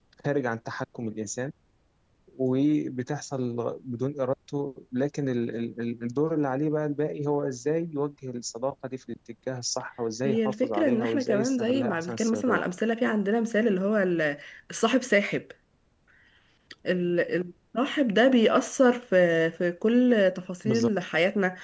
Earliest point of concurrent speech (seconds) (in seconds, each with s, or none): 10.2 s